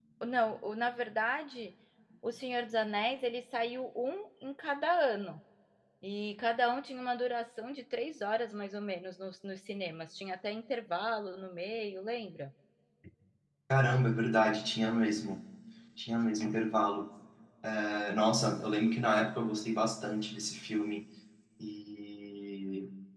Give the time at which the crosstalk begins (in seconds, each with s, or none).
none